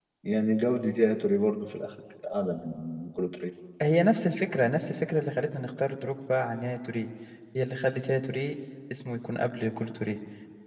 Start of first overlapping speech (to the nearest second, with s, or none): none